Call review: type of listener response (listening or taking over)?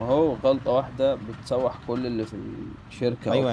taking over